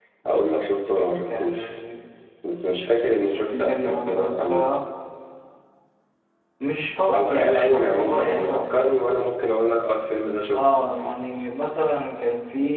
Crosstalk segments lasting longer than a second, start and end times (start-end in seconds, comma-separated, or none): 3.3-4.7, 7.2-8.8